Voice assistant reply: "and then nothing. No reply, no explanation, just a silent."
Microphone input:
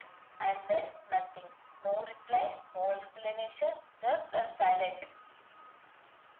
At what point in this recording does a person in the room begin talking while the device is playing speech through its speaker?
none

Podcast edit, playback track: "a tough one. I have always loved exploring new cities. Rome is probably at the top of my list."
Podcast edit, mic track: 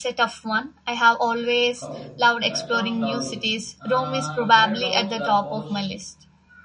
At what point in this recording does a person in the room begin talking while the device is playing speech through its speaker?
1.8 s

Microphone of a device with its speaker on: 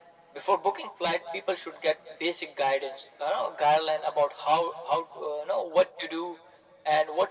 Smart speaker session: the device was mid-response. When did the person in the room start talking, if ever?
none

